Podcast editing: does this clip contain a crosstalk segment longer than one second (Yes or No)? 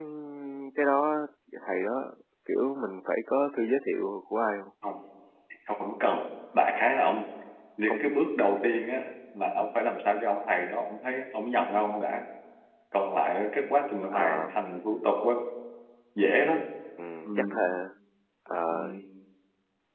No